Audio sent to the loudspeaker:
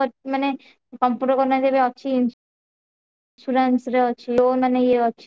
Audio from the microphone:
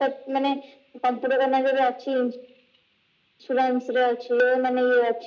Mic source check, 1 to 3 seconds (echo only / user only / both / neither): echo only